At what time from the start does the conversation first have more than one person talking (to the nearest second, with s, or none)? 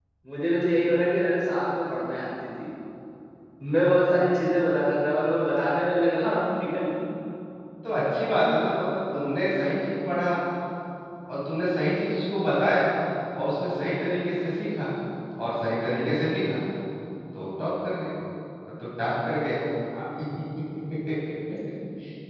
none